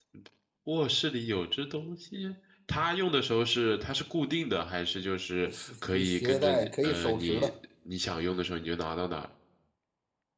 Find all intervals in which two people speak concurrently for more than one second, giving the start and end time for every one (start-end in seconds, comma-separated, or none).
5.5-7.5